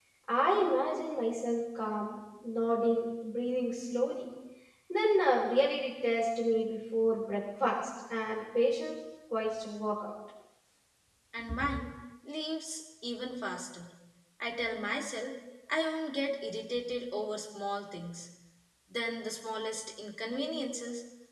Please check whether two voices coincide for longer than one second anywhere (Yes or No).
No